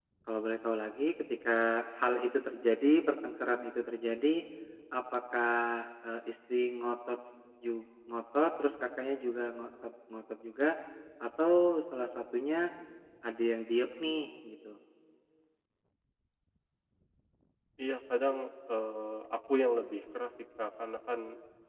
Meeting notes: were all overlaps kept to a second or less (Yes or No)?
Yes